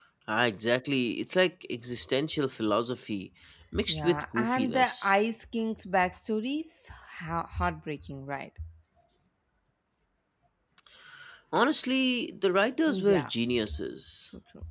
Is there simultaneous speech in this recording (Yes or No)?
Yes